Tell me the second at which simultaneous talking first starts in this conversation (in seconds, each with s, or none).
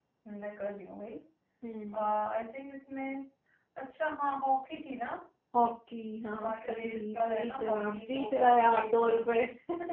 6.3 s